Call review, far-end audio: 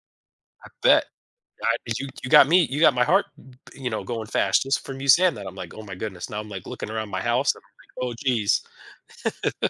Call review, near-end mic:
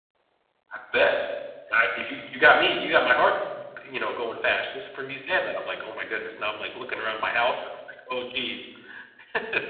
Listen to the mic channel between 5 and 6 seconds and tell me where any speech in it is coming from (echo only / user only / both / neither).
echo only